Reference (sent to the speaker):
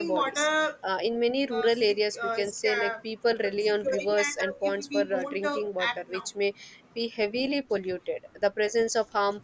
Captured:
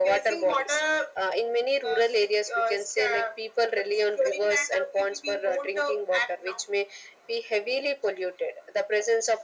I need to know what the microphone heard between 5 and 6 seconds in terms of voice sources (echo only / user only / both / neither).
echo only